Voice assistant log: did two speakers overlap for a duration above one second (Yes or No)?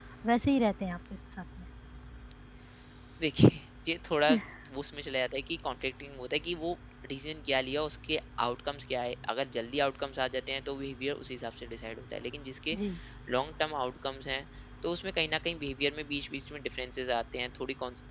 No